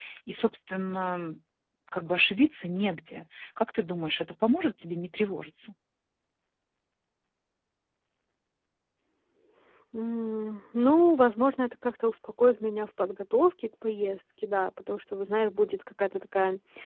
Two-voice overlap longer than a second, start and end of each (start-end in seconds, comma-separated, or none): none